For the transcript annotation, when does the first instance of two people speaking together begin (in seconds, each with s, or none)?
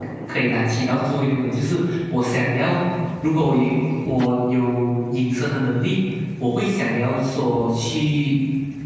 none